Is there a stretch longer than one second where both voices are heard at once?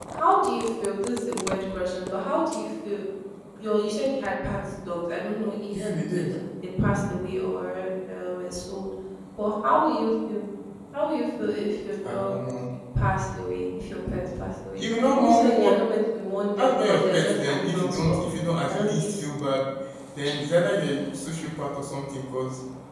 Yes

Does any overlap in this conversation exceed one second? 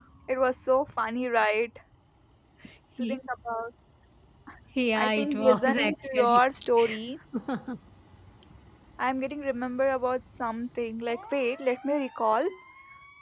Yes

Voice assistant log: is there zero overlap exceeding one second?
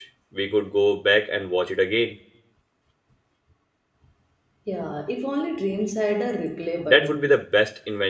Yes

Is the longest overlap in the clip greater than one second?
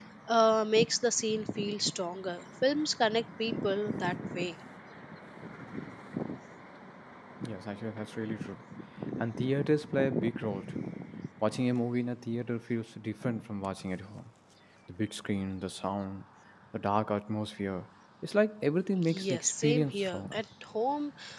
Yes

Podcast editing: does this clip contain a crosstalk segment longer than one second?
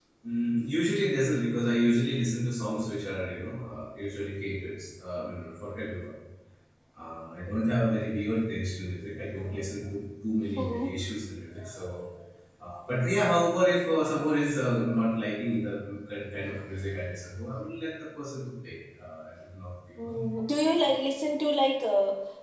No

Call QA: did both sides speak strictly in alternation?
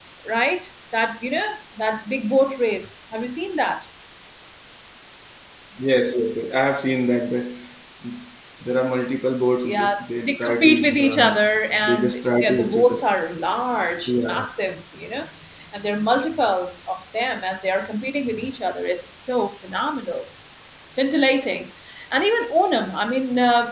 No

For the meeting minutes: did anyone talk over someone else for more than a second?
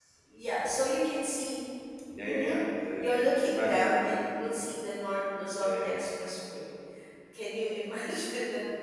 Yes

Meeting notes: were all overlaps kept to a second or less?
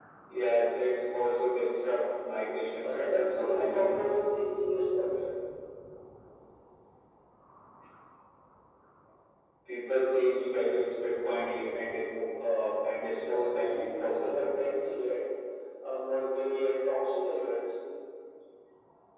No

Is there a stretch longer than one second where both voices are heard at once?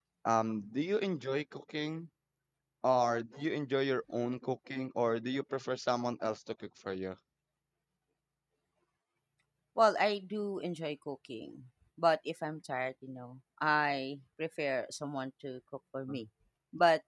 No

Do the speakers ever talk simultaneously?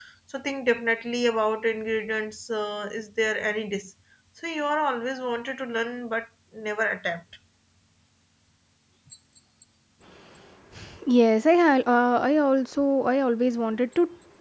No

